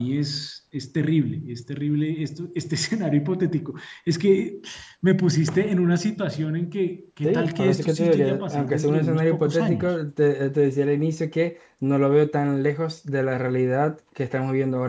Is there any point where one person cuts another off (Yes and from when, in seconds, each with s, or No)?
Yes, from 7.2 s